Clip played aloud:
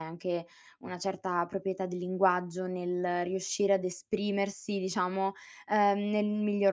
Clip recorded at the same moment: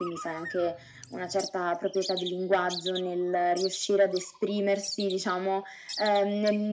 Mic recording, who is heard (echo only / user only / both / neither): echo only